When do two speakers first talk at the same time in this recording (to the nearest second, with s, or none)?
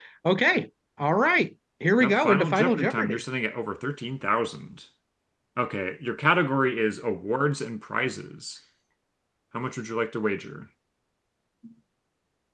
2 s